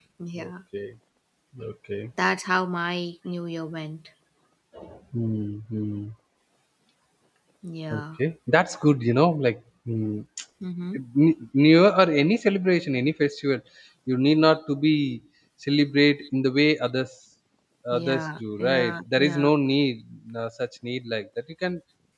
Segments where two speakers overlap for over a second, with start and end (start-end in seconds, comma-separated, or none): 17.9-19.5